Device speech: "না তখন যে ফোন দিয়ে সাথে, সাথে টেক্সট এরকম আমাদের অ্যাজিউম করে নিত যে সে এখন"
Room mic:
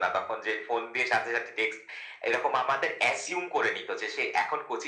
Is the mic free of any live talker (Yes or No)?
Yes